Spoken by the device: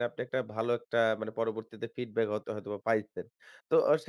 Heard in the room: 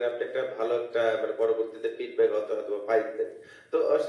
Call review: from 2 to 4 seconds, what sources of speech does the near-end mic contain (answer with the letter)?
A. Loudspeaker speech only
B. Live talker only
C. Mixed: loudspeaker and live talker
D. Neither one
A